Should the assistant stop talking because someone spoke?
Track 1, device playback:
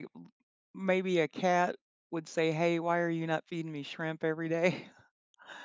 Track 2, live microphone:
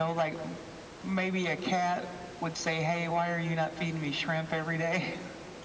No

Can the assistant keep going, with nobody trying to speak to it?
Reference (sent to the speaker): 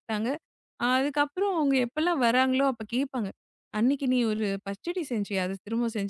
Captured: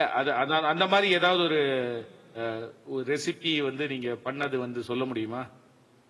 No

